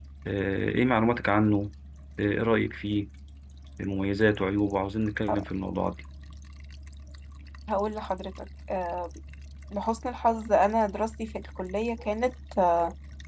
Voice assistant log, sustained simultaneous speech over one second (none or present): none